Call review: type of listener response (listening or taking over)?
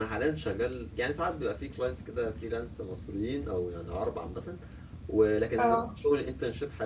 listening